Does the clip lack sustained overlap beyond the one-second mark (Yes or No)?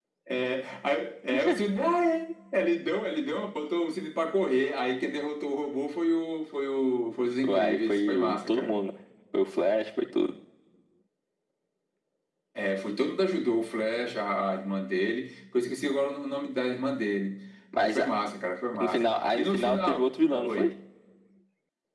No